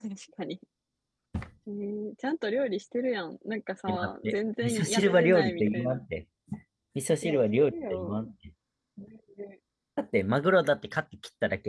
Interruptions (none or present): present